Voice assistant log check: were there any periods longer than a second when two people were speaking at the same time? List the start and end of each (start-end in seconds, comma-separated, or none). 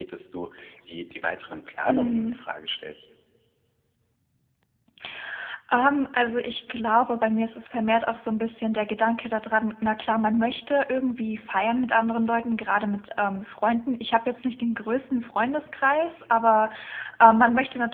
none